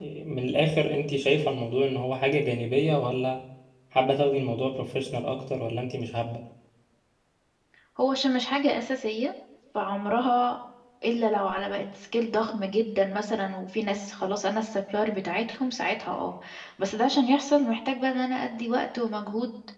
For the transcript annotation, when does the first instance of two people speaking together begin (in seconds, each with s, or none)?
none